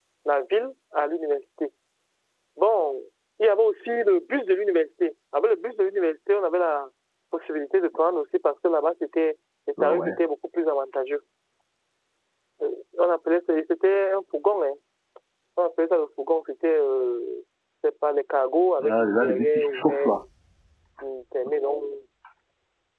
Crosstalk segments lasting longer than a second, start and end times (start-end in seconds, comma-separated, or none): 18.8-20.1